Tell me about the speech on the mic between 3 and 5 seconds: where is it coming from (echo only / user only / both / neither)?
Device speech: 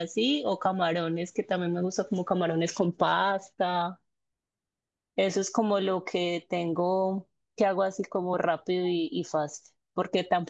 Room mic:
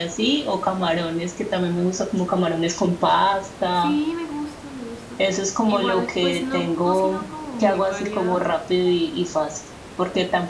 both